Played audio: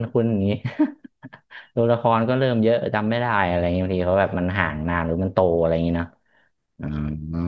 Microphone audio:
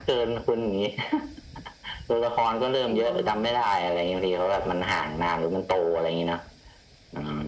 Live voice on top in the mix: No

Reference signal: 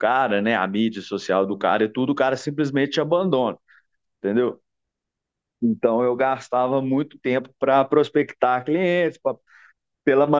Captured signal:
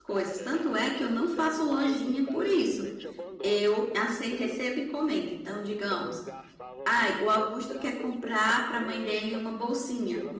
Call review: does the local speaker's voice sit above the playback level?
Yes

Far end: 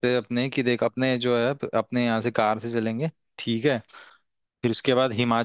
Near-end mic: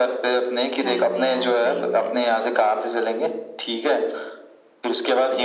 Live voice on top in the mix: No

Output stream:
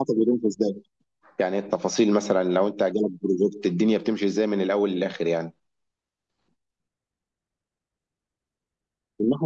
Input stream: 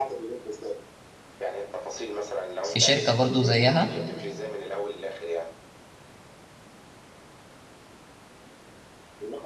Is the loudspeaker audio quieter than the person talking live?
Yes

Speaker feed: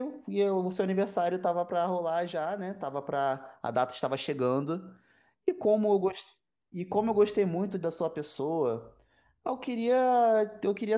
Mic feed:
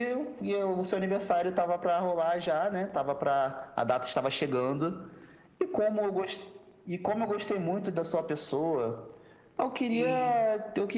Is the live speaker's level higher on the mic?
No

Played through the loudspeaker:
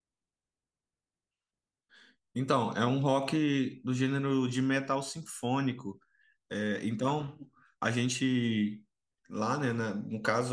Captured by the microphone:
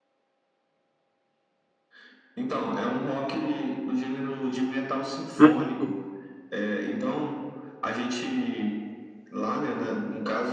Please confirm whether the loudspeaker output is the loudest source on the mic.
No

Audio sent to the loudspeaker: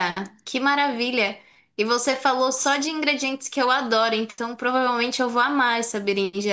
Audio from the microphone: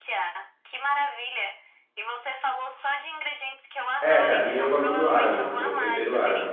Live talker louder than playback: Yes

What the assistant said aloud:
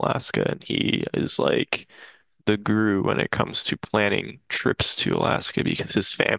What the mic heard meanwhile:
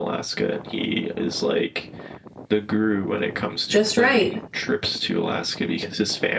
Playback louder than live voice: No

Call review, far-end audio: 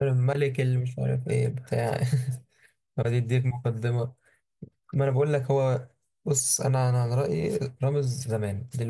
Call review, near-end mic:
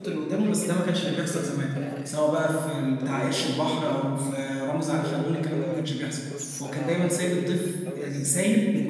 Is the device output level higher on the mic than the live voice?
No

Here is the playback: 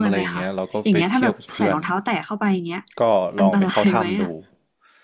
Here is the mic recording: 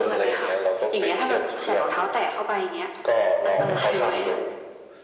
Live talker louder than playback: No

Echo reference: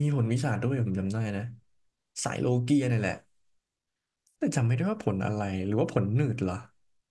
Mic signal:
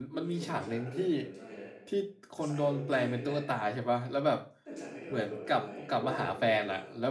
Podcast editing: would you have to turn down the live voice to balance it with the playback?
Yes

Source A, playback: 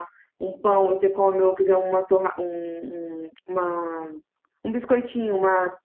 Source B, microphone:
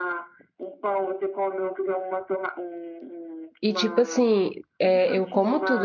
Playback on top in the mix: No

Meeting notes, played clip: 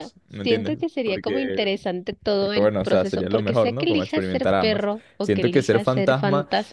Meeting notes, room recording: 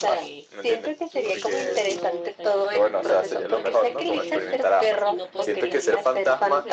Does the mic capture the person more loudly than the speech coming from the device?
No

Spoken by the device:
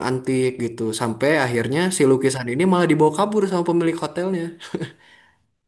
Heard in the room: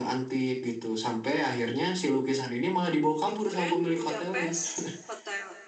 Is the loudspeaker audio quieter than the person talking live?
No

